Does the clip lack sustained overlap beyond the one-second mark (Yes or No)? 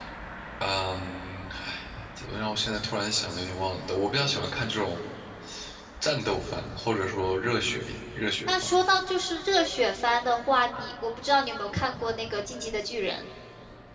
Yes